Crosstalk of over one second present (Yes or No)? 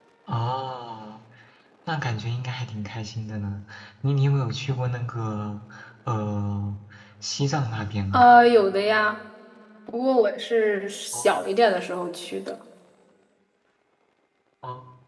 No